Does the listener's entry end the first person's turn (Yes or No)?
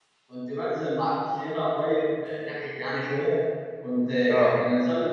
No